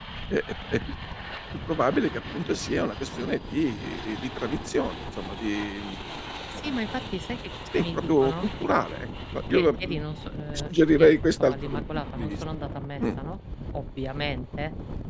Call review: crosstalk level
present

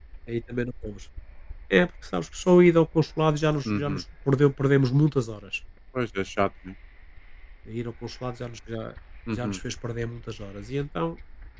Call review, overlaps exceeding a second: none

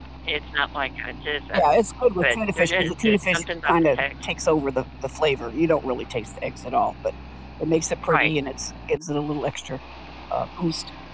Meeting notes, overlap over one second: present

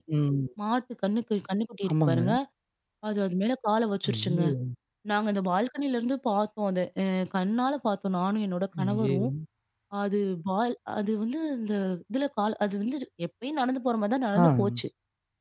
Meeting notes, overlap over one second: none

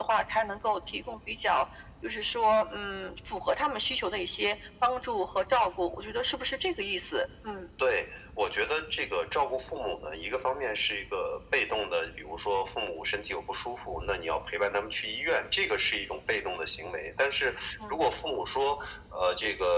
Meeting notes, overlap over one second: none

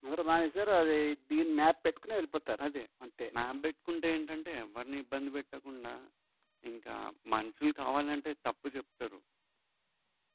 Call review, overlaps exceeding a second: none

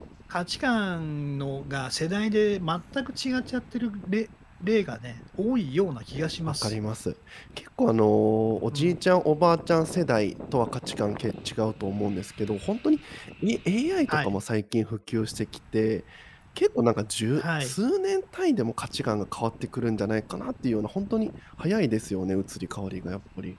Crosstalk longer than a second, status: none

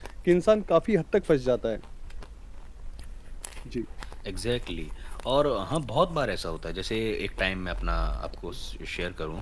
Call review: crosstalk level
none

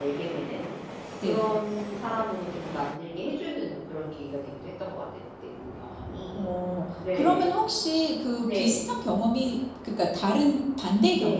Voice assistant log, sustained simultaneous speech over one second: none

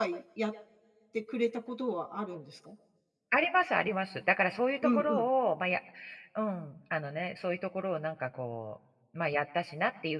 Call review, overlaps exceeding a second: none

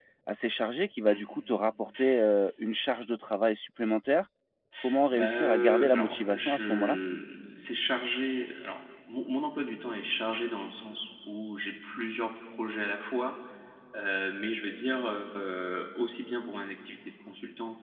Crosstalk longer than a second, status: present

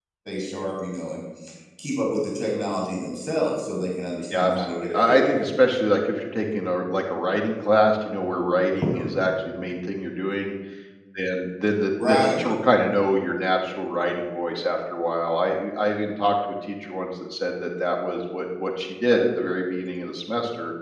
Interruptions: present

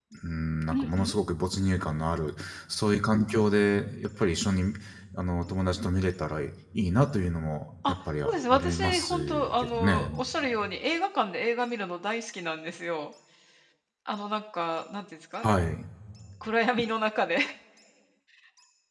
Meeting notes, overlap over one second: present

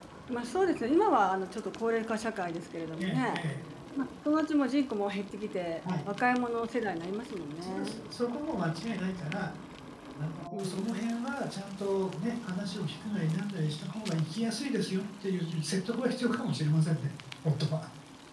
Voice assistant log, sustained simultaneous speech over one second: none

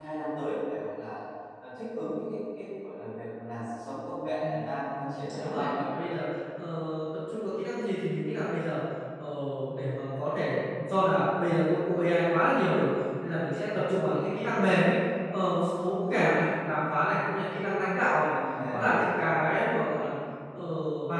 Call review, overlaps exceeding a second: present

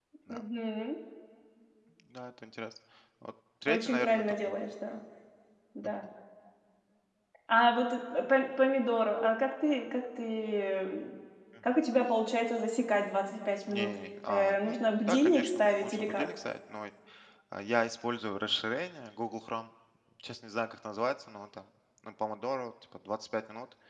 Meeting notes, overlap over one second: present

